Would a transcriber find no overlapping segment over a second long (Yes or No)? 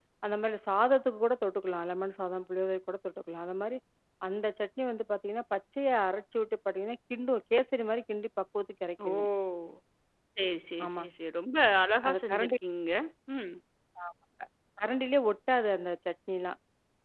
Yes